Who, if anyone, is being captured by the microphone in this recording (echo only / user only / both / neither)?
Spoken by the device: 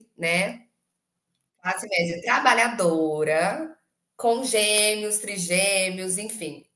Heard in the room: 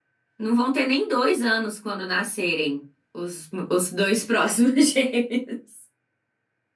user only